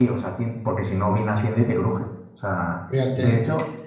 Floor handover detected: No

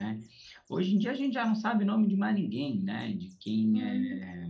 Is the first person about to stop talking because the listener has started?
No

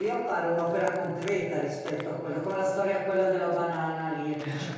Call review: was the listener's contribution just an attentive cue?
Yes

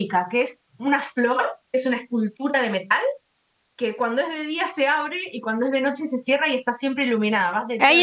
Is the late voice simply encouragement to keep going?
No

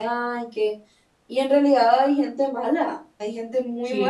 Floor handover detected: Yes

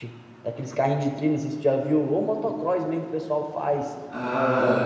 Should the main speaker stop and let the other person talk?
Yes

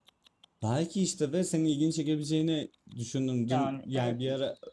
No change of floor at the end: Yes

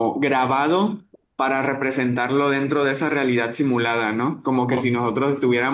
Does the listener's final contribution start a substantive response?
No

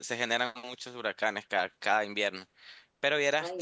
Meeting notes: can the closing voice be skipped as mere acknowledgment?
No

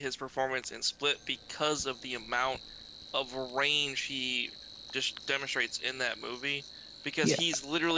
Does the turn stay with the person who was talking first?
Yes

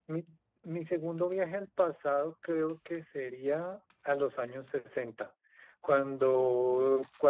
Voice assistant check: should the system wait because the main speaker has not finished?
Yes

